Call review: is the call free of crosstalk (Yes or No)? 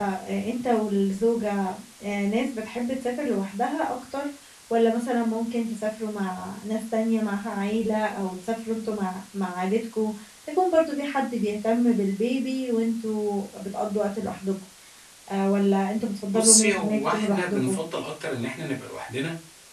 No